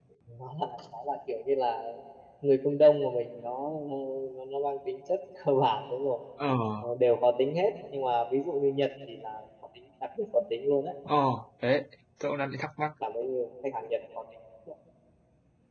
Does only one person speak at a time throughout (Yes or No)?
Yes